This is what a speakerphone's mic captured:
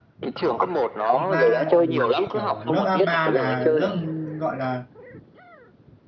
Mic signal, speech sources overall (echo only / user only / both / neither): both